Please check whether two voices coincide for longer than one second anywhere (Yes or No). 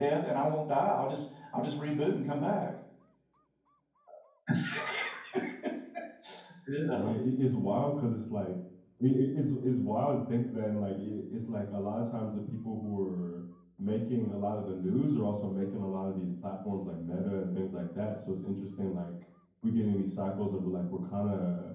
No